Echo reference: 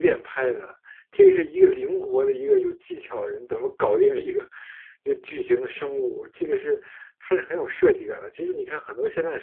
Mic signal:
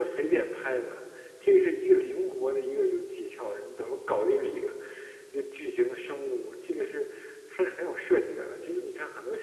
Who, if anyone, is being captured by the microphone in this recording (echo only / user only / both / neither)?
echo only